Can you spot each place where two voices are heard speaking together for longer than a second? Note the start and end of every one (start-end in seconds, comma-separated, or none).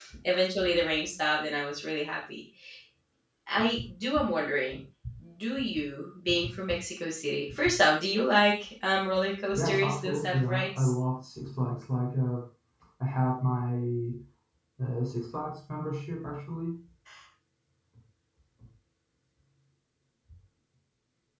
9.5-10.9